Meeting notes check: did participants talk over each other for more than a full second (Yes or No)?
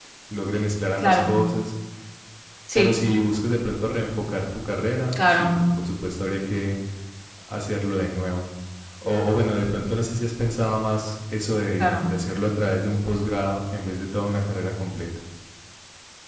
No